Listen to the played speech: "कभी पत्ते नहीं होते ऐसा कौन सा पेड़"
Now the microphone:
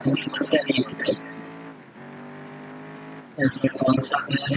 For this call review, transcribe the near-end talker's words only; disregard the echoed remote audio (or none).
none